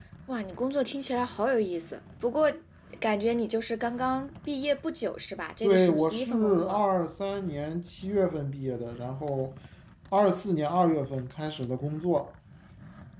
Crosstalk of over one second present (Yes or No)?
Yes